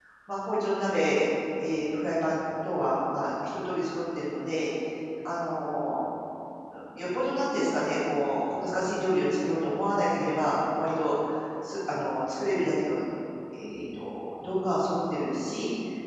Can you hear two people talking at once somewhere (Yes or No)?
No